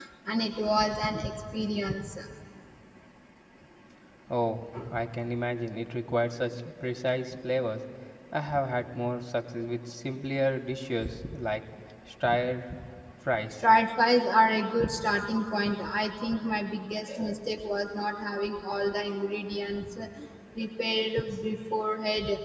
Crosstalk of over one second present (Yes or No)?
No